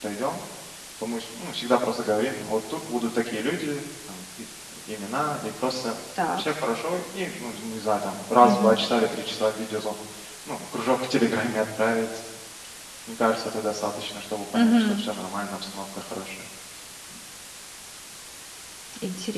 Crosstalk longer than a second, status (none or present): none